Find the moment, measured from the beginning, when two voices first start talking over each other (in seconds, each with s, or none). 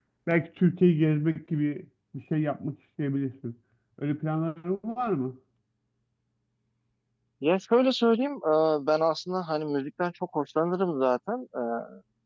none